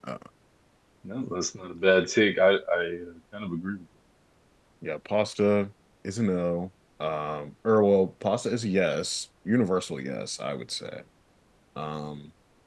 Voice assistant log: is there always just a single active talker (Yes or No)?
Yes